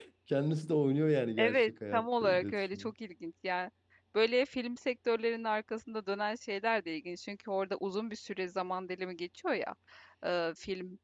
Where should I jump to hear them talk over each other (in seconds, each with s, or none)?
1.4 s